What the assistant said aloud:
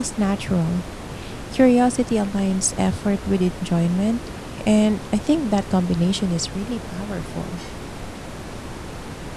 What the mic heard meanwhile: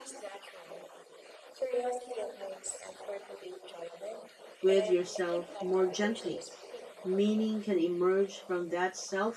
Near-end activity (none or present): present